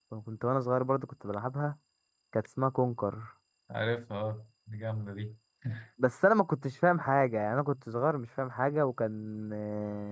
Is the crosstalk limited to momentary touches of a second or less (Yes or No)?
Yes